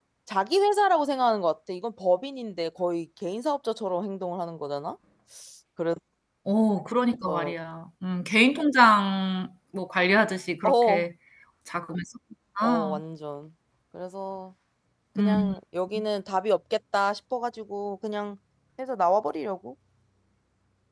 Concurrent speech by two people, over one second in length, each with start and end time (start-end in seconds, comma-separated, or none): none